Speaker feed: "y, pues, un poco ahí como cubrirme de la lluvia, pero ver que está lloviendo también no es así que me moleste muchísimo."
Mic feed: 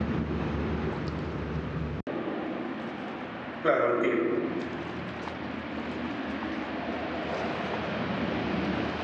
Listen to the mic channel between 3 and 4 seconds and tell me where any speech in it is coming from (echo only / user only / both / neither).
user only